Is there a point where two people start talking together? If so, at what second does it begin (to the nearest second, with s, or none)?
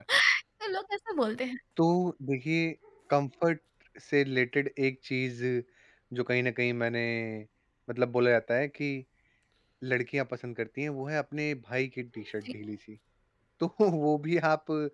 none